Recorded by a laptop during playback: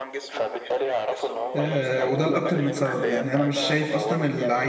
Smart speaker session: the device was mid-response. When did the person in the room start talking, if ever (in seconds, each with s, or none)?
1.6 s